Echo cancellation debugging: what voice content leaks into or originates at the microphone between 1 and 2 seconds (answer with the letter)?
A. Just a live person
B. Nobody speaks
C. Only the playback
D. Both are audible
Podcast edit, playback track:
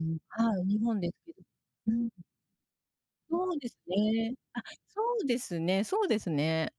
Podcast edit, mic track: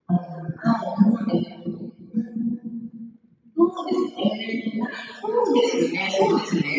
C